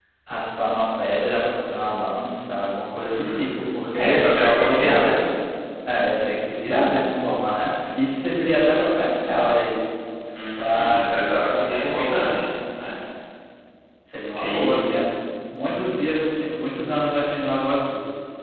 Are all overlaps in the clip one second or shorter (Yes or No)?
No